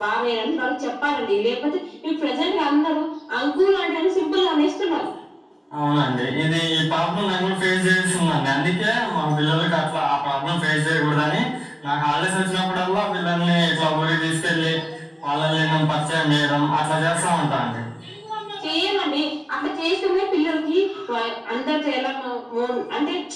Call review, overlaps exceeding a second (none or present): none